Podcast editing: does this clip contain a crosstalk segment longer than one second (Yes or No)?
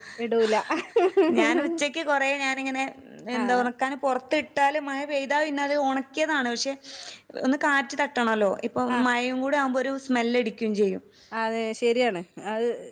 No